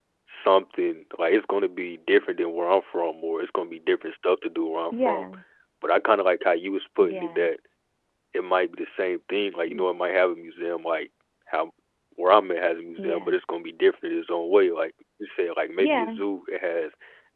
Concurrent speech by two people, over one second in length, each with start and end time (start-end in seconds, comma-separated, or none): none